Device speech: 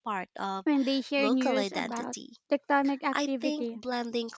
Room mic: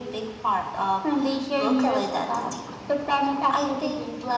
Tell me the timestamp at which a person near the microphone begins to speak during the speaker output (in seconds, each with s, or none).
none